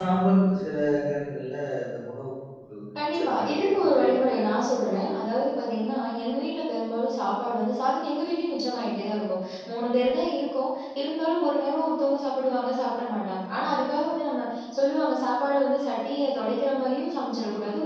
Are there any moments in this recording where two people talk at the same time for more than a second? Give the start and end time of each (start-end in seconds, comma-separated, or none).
3.1-4.6